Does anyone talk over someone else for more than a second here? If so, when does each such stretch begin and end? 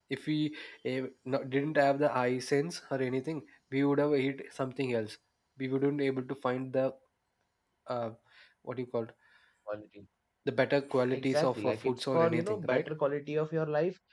11.1-12.9

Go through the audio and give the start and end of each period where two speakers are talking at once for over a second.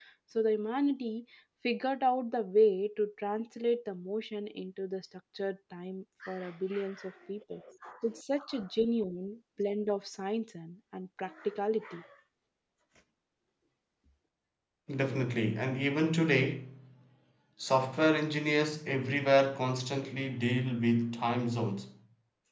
none

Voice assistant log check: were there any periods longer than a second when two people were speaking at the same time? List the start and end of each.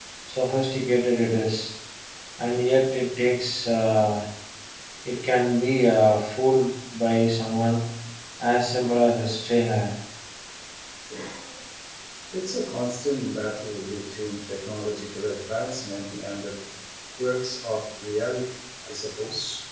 none

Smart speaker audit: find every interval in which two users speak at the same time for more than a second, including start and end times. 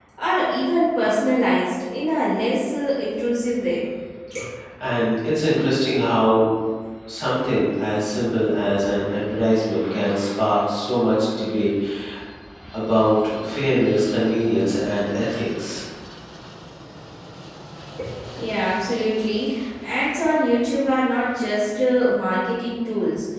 none

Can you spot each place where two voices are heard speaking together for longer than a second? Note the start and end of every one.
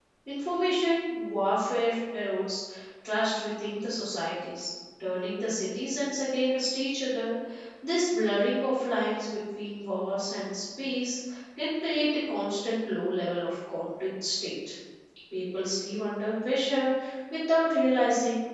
none

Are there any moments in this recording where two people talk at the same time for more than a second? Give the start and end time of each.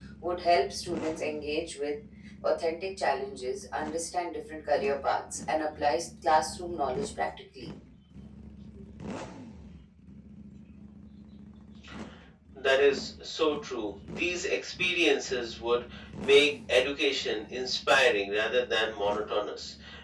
none

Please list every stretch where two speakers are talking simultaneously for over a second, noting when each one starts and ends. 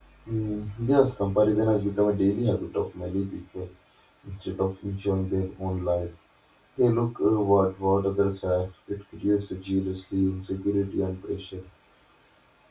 none

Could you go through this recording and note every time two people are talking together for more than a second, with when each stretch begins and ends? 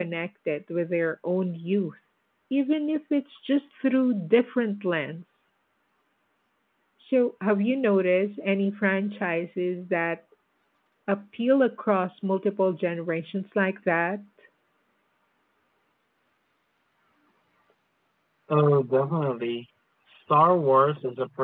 none

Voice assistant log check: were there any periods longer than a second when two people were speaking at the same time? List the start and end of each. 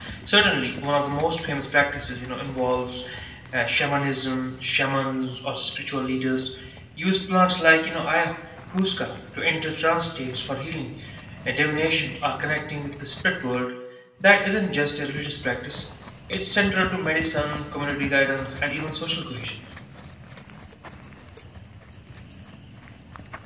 none

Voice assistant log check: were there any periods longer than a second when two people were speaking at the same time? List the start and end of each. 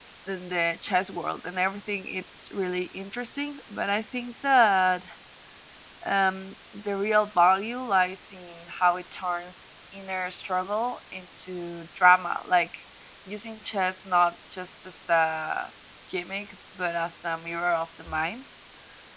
none

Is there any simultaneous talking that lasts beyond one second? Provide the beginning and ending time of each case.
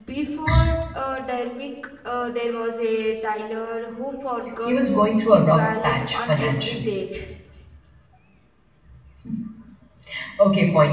5.3-6.9

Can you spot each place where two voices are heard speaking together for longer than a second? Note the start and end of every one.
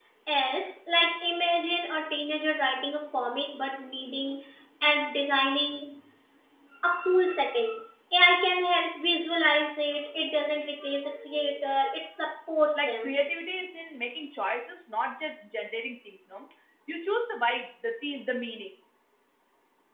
none

